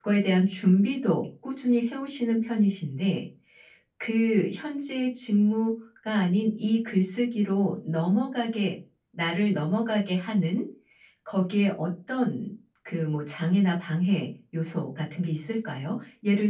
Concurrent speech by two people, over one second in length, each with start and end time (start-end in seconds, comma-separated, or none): none